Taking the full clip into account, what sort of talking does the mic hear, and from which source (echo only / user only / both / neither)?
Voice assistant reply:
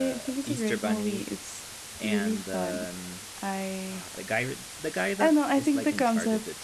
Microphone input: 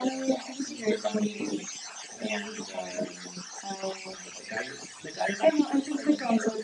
echo only